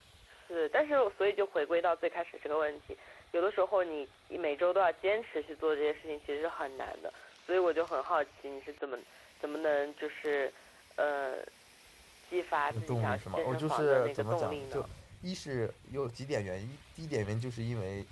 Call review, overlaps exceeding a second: present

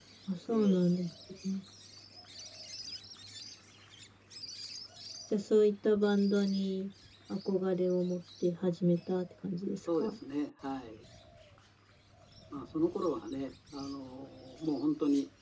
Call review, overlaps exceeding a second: none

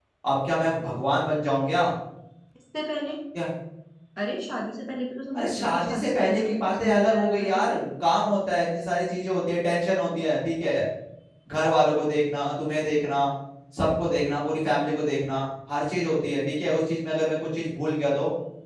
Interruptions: present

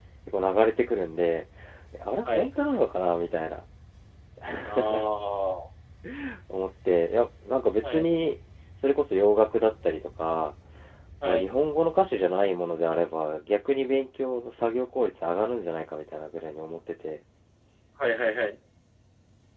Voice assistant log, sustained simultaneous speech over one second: none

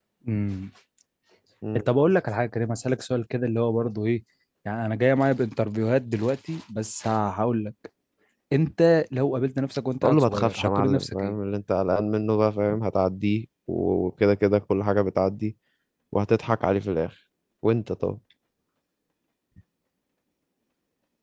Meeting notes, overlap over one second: present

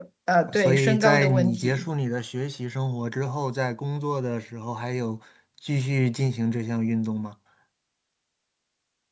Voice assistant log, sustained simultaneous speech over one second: present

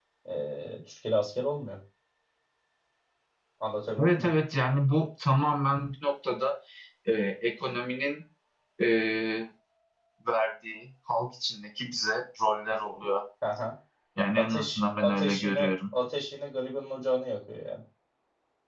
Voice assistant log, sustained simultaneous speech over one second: present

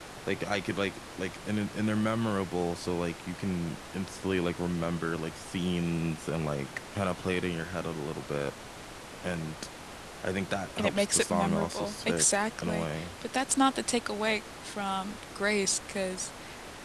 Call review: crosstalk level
present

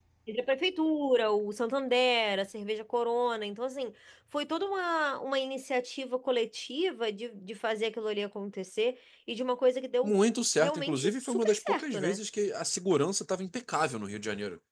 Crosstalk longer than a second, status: present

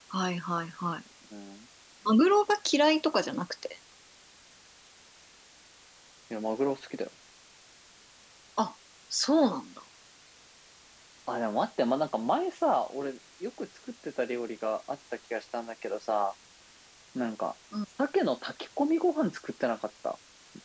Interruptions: none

